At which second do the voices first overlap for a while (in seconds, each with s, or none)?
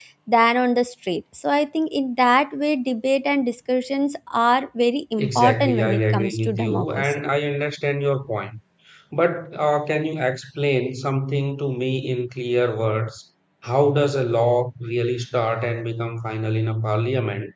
5.2 s